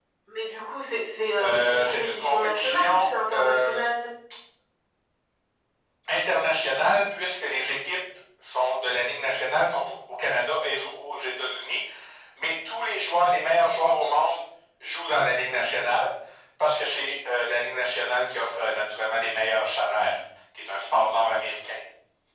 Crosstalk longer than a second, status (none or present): present